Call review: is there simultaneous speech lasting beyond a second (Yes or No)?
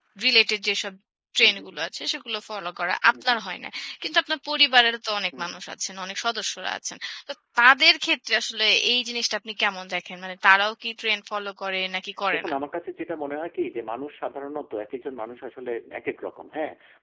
No